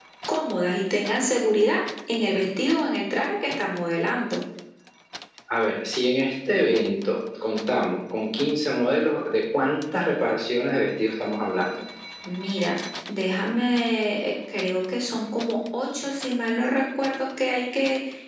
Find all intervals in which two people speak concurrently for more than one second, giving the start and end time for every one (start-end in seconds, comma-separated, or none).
none